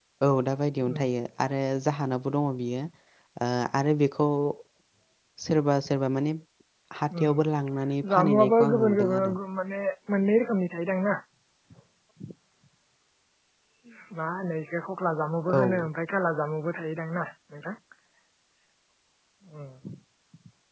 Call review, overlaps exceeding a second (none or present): present